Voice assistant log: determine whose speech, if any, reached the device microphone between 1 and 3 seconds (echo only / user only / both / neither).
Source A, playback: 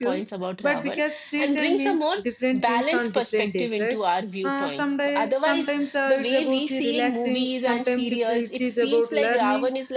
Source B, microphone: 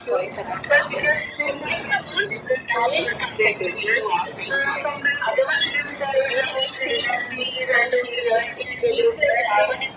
echo only